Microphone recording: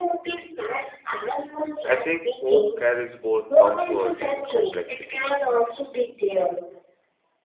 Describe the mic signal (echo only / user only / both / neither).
both